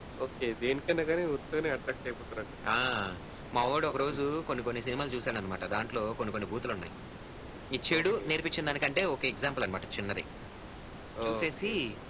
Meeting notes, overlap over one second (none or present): none